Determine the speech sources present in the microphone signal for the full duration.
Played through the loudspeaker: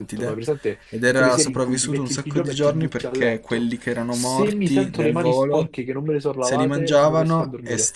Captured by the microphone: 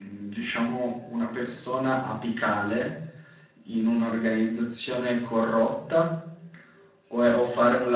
user only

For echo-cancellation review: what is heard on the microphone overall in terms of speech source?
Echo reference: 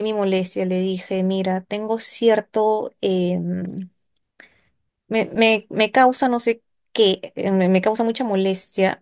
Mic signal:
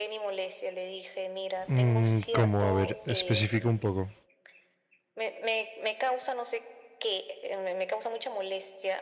both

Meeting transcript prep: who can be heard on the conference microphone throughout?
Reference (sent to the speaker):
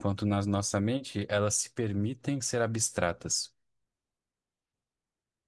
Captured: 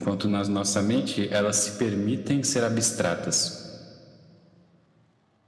echo only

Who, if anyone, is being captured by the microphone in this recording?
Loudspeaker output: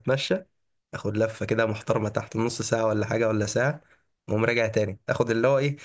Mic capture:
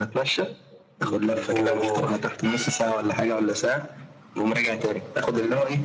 both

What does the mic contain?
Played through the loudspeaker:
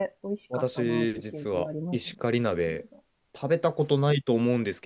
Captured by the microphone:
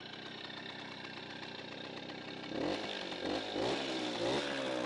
neither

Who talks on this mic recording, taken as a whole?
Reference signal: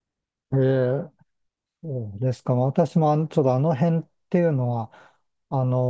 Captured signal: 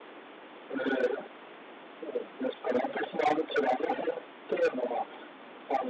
echo only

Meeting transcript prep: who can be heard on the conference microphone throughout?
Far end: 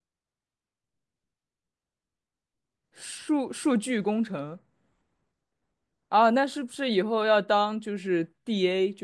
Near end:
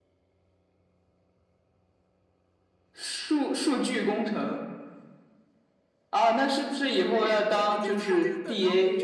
both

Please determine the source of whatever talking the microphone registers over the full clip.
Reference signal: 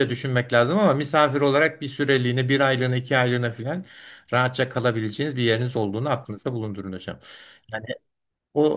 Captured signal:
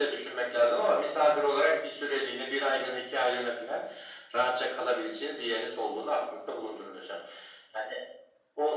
echo only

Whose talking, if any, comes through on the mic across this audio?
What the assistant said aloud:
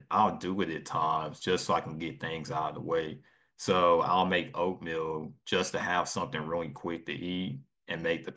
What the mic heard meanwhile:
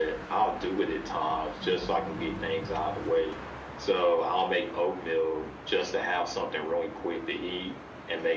echo only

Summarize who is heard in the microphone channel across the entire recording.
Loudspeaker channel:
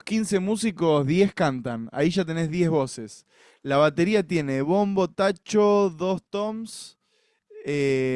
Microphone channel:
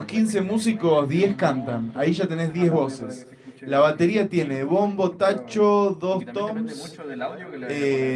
both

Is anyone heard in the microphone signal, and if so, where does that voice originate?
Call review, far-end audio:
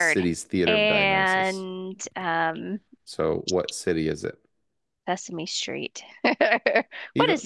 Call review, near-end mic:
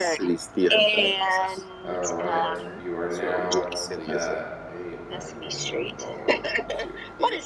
both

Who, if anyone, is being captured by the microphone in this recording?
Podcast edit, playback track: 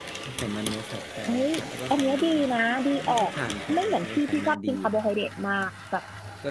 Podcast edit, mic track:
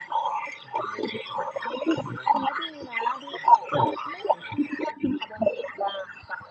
echo only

